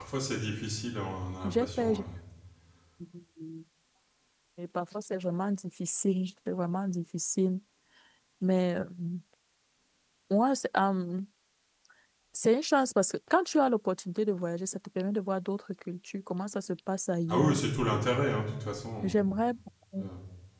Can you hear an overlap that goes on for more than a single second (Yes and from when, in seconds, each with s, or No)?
No